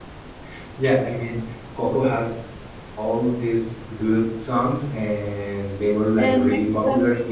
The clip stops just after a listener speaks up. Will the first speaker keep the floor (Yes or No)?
Yes